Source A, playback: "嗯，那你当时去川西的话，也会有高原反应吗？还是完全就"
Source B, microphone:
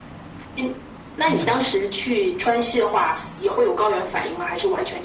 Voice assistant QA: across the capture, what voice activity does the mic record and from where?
both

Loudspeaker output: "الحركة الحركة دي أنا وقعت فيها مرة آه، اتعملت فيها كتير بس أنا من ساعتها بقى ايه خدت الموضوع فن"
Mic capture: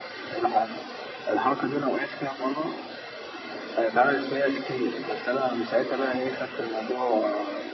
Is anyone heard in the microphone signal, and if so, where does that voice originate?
echo only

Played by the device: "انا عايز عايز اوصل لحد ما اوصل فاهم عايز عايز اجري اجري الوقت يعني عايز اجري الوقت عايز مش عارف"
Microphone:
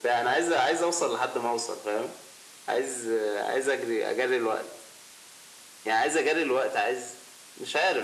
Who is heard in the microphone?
echo only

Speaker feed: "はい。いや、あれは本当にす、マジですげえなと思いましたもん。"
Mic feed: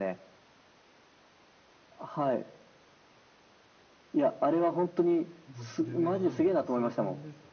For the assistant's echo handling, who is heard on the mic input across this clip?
both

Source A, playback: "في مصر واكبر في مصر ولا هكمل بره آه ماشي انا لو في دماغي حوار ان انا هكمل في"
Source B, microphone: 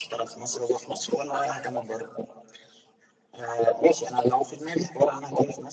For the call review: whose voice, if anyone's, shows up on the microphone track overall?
echo only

